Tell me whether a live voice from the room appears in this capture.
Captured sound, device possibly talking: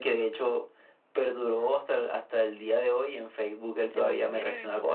Yes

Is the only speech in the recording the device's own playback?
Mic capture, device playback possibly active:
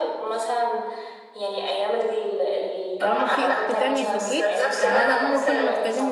No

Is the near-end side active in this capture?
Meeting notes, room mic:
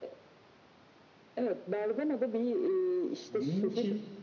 Yes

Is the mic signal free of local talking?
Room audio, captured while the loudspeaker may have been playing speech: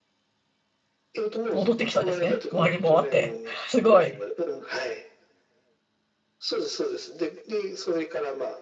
No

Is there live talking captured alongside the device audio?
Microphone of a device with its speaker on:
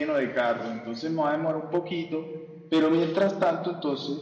Yes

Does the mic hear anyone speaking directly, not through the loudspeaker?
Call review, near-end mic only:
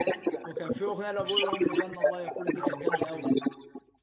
Yes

